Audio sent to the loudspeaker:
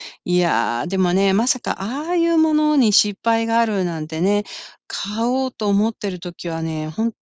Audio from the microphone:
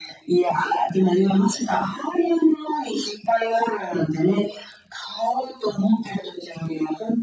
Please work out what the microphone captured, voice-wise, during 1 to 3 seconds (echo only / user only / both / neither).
echo only